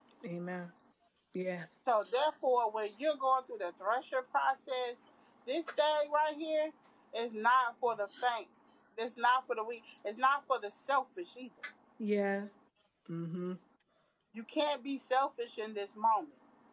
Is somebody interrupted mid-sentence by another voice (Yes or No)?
No